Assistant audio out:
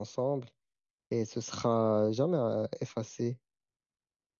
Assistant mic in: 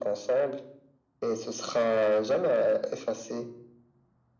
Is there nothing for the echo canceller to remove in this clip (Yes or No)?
No